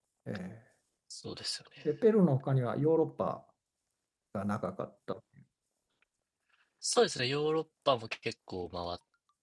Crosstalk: none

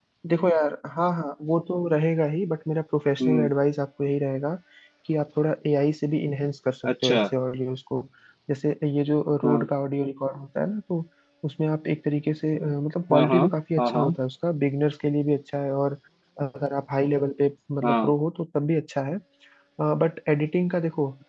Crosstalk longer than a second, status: none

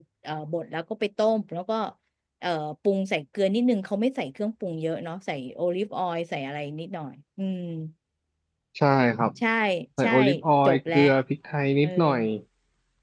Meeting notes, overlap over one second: none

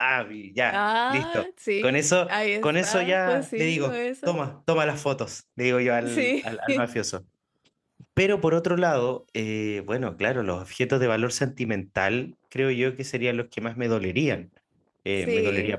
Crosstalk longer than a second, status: present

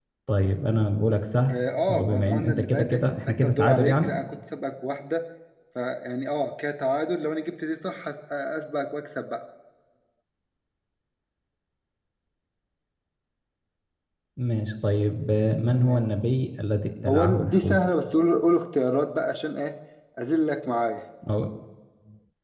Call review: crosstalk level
present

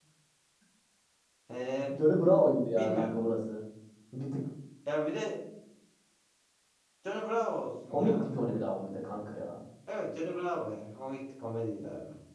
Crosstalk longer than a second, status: none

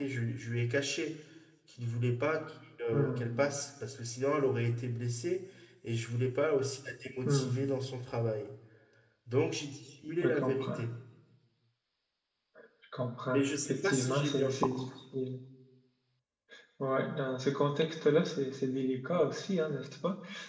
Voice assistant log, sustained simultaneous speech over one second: present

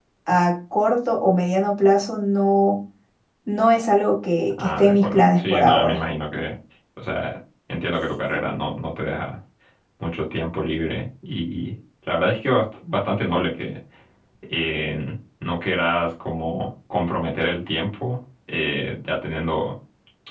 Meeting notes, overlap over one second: present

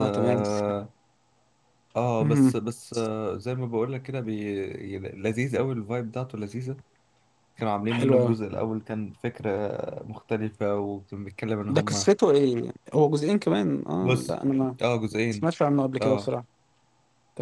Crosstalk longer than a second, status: none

